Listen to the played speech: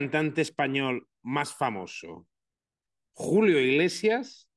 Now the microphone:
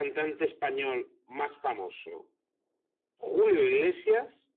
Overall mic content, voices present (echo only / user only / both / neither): echo only